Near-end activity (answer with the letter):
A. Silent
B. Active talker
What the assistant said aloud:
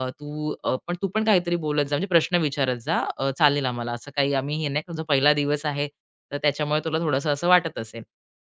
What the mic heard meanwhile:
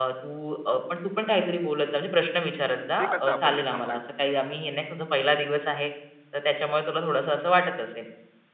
B